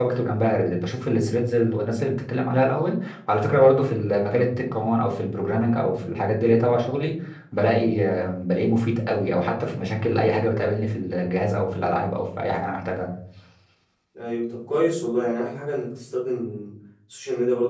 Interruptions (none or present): none